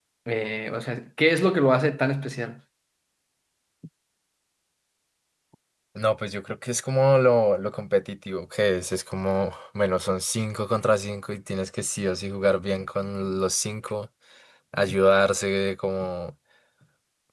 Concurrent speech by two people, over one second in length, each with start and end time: none

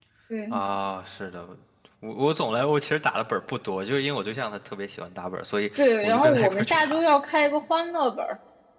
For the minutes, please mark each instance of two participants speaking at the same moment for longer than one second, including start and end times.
5.8-7.0

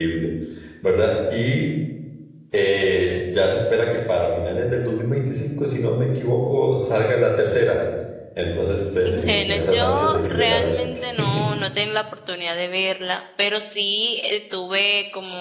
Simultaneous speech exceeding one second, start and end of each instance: 9.0-10.8

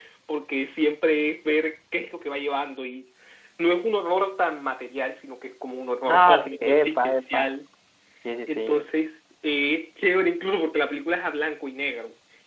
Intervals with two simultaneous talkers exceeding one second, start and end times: 6.1-7.5

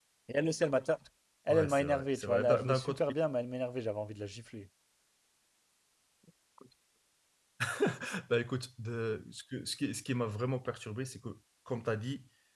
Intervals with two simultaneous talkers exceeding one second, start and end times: 1.5-3.0

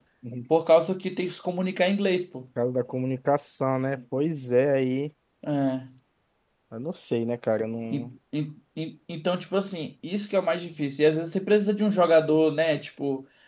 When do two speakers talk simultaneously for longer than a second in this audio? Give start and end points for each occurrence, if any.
none

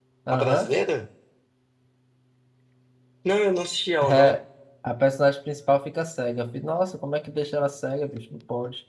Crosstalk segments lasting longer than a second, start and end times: none

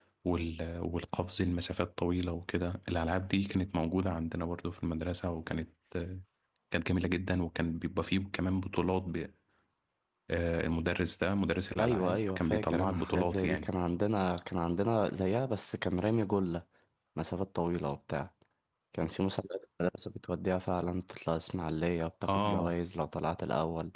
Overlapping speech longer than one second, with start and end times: 11.8-13.7

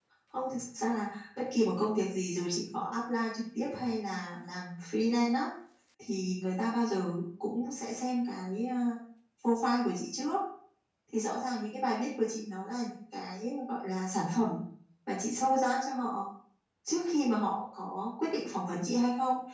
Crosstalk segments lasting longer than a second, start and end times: none

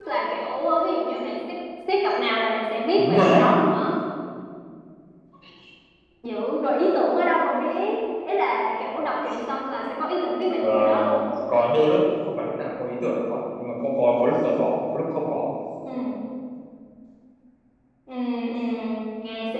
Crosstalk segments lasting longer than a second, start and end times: none

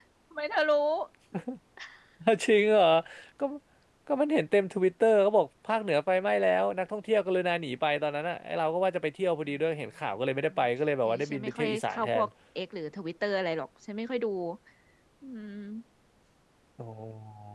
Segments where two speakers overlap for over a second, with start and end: 11.0-12.2

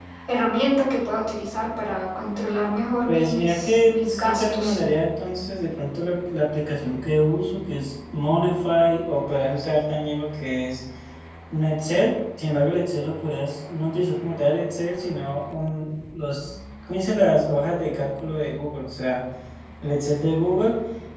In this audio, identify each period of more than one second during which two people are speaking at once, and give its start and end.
3.1-4.8

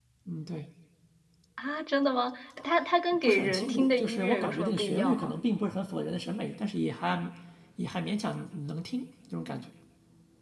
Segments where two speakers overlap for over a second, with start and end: 3.2-5.3

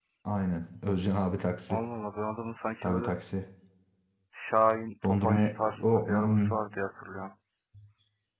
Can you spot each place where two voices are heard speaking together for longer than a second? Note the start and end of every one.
5.0-6.5

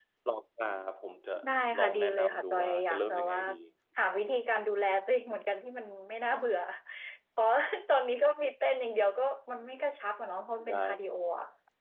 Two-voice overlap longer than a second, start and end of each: 1.8-3.4

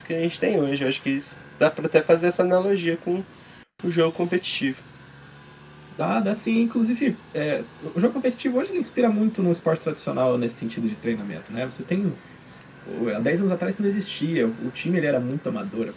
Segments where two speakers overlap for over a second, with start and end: none

